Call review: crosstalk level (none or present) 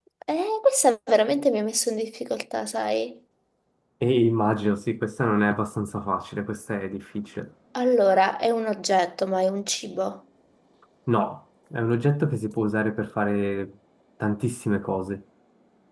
none